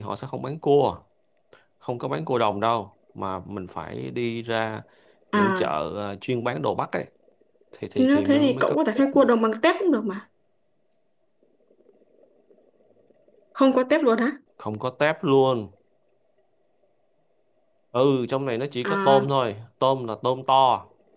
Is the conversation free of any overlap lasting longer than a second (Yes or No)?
No